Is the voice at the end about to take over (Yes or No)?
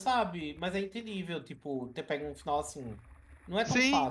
Yes